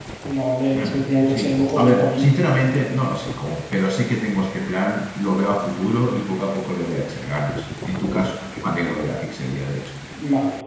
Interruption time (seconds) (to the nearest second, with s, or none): 1 s